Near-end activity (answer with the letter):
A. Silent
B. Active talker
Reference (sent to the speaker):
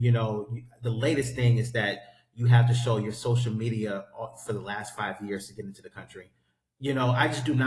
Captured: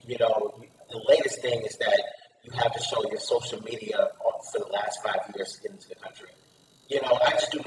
A